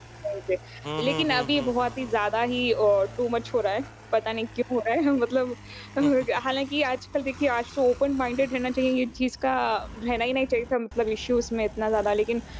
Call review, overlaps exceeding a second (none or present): present